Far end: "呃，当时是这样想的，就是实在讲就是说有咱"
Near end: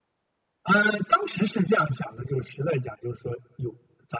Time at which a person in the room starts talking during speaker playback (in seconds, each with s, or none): none